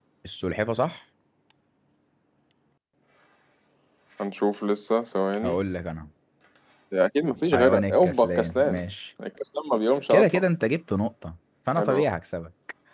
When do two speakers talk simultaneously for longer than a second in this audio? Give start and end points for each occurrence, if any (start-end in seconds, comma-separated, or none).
7.5-8.8